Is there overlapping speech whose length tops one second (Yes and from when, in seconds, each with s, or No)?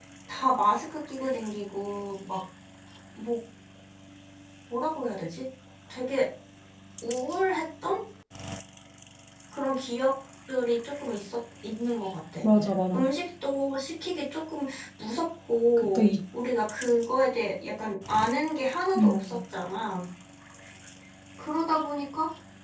No